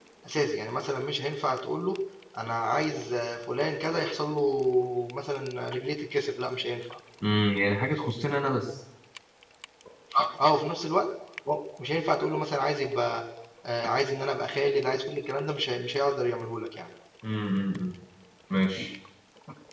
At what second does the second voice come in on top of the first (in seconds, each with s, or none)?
none